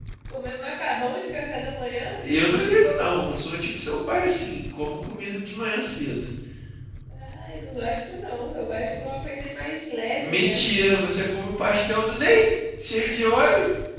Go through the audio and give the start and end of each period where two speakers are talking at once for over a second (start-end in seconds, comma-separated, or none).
none